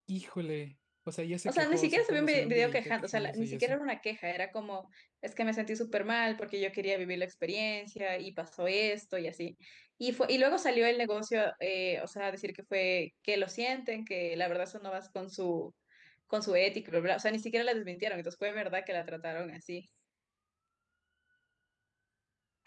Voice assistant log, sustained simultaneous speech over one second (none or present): present